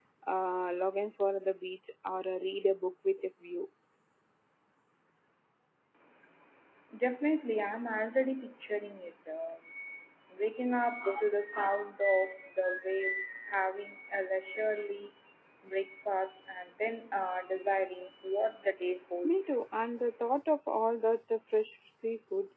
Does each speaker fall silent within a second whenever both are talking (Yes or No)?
Yes